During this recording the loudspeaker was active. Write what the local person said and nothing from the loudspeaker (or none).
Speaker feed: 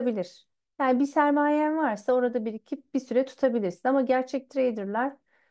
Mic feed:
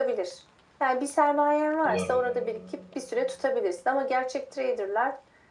Dolar mı?